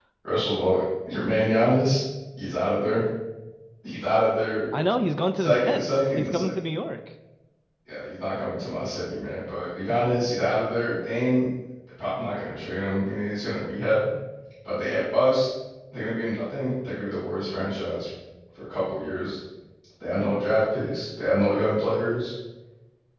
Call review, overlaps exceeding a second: present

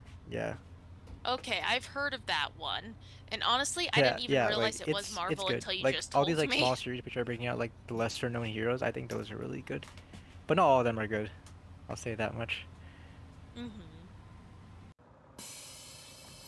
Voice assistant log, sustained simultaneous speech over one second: present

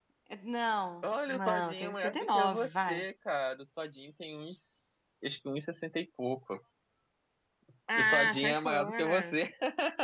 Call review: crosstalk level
present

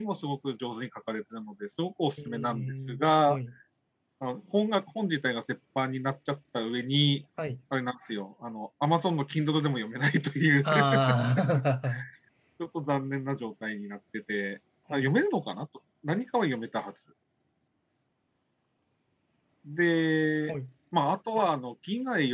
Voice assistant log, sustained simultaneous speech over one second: present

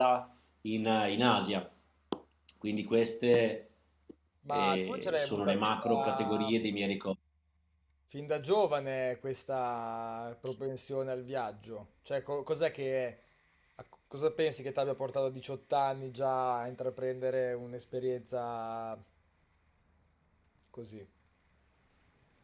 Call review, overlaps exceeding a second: present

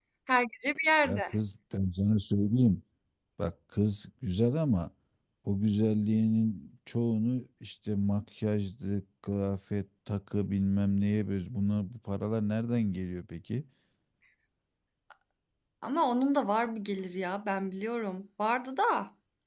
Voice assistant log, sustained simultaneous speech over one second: none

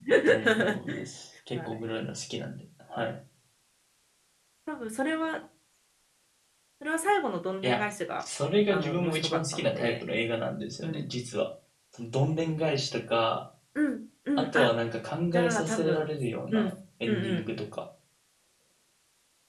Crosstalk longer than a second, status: present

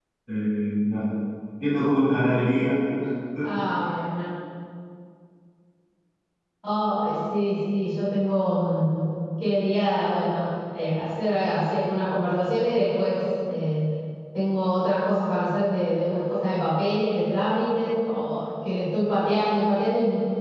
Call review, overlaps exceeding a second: none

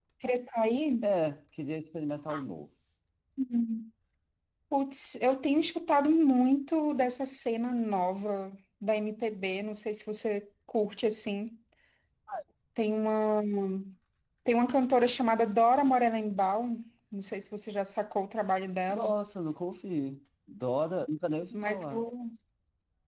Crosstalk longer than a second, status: none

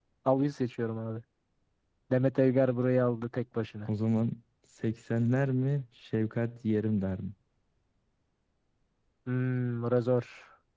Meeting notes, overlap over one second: none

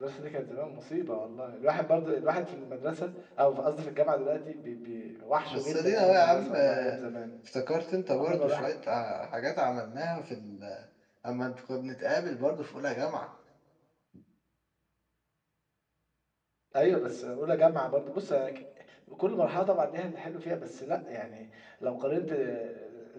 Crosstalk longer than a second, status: present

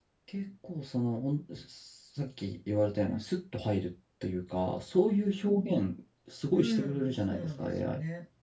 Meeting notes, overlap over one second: present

